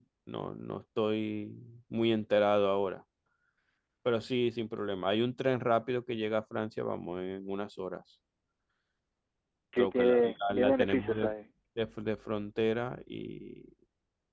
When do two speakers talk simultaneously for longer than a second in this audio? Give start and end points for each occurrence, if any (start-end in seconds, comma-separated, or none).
9.8-11.3